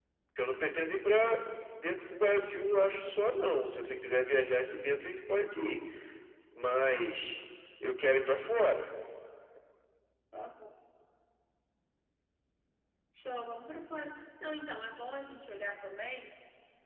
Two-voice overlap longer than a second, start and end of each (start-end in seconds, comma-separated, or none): none